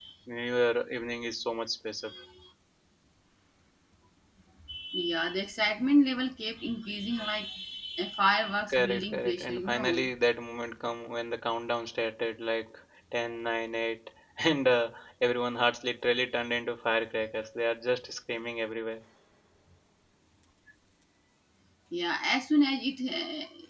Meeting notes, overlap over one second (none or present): present